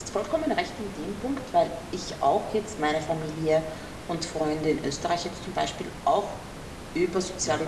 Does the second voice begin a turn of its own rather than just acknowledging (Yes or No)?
No